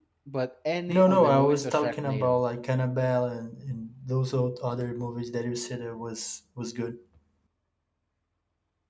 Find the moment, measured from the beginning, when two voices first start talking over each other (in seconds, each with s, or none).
0.9 s